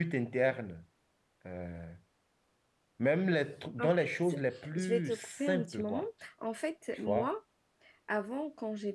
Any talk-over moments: Yes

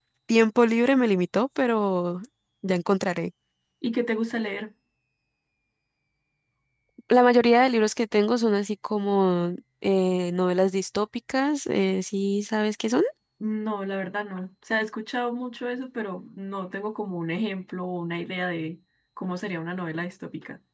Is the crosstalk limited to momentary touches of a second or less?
Yes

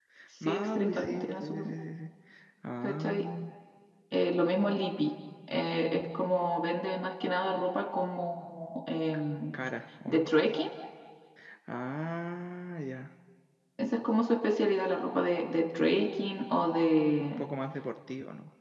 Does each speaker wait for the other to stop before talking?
No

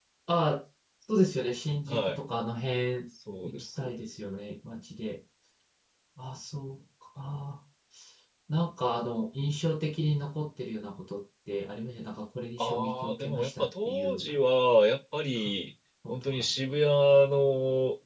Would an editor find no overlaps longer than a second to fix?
No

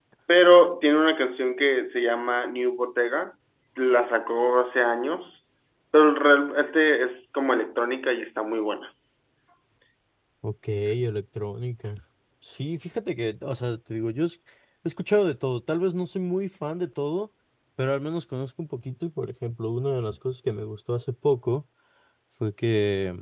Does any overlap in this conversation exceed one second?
No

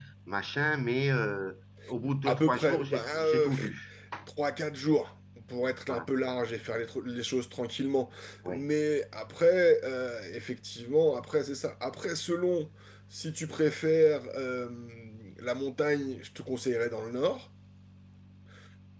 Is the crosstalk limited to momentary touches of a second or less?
No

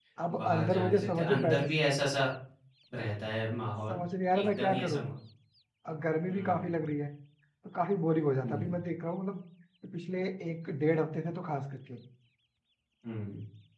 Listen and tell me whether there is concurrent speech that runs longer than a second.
Yes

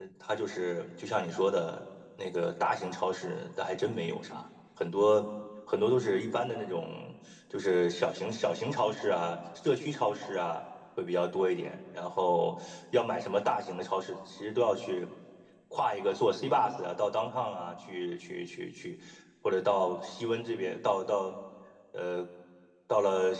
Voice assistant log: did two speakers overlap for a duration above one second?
No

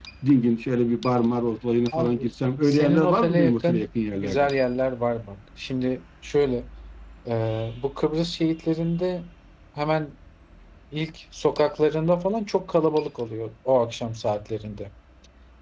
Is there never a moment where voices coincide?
No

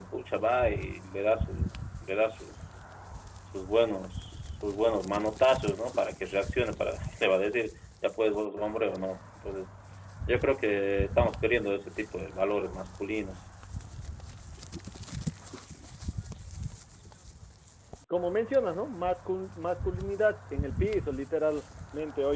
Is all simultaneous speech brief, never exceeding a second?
Yes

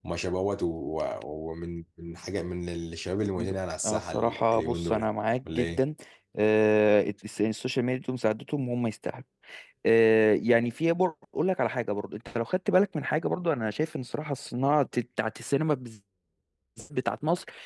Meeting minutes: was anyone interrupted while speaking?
Yes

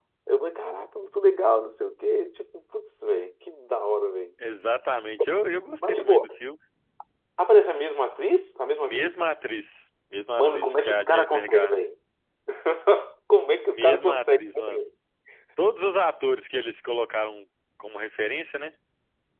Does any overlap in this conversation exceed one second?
Yes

